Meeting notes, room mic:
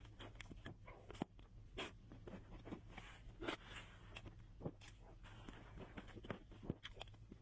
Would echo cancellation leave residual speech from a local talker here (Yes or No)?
No